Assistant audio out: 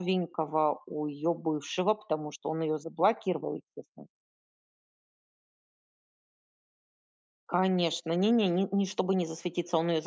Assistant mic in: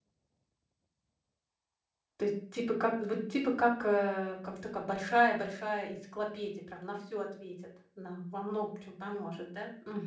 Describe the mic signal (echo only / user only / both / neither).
user only